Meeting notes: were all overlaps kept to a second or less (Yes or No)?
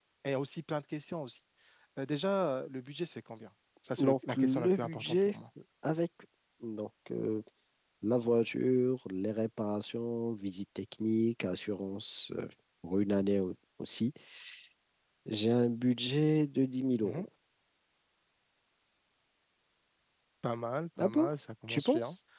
No